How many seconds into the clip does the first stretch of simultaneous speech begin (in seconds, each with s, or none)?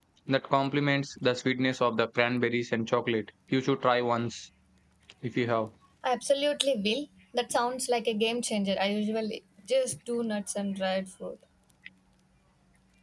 none